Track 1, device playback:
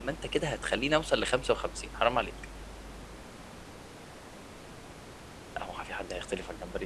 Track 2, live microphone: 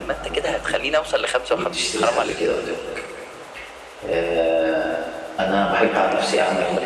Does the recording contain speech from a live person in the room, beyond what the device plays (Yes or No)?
Yes